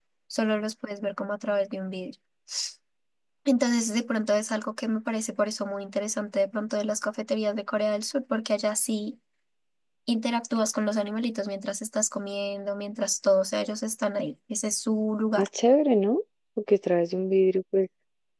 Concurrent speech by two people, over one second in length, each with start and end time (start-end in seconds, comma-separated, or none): none